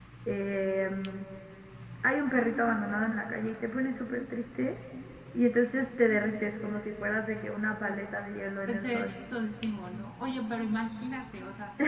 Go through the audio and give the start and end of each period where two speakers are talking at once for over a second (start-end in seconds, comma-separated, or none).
none